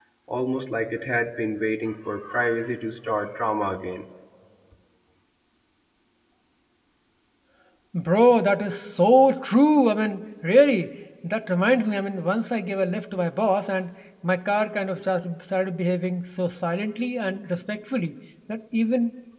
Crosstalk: none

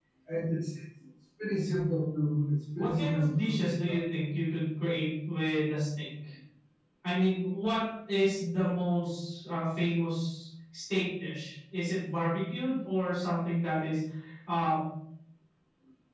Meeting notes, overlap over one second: present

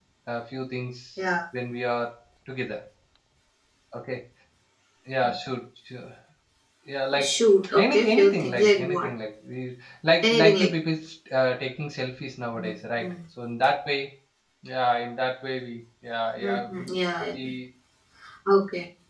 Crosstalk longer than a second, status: present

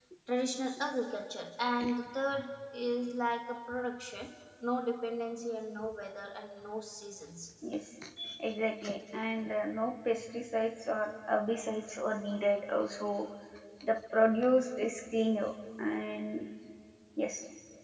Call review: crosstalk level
none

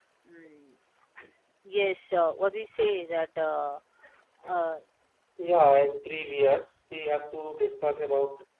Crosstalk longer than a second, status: none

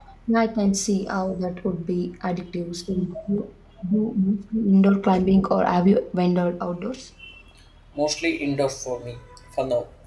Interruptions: none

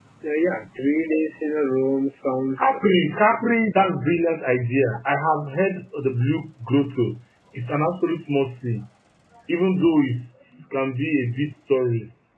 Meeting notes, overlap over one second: none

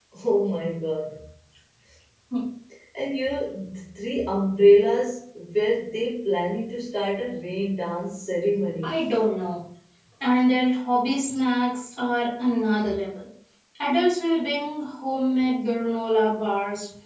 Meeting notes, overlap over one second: none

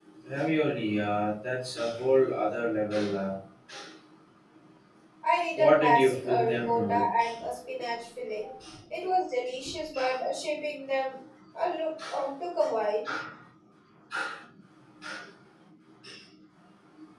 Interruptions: present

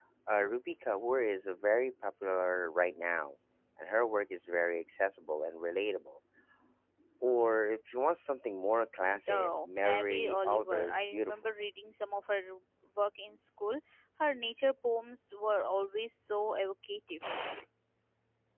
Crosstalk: present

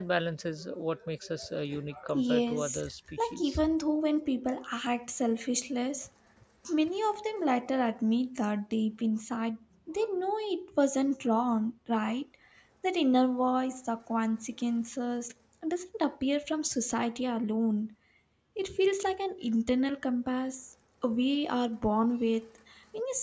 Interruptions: present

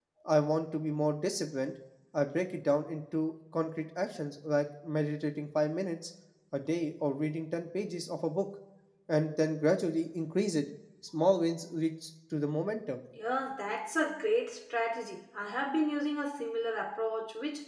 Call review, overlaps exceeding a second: none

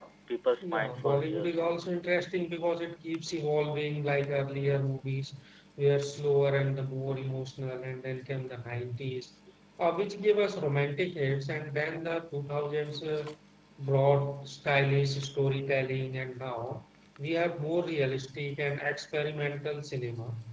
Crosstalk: present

